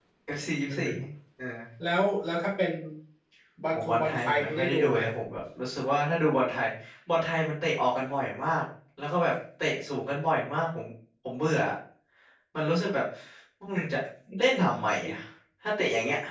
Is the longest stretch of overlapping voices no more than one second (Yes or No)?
No